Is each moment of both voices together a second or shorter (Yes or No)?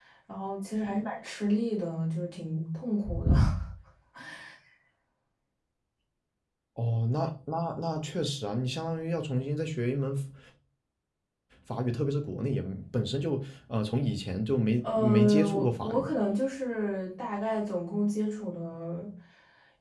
No